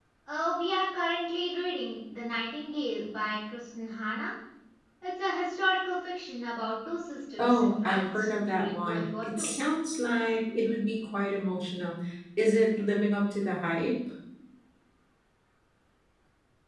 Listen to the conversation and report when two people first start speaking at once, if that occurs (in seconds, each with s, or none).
7.4 s